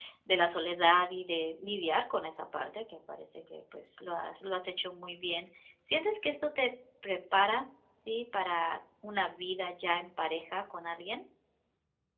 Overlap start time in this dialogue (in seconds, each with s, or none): none